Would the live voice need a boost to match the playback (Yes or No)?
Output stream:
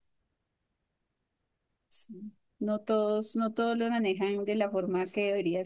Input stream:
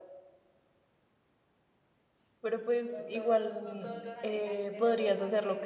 No